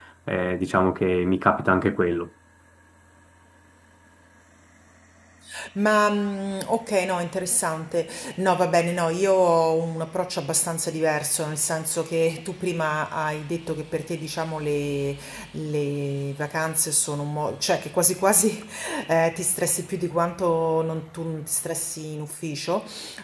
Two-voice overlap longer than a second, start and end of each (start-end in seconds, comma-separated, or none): none